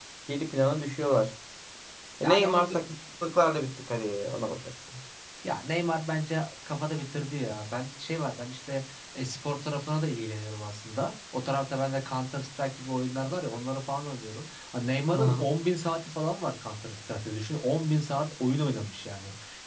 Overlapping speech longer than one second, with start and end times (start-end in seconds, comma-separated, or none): none